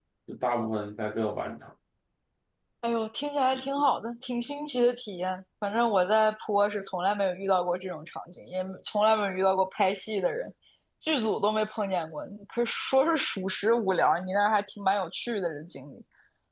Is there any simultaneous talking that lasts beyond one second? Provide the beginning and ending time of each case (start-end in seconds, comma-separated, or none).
none